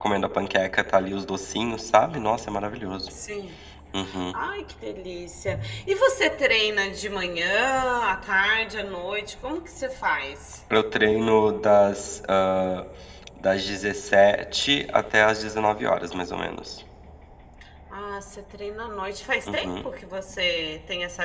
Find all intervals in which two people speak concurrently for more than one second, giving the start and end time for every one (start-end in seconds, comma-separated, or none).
none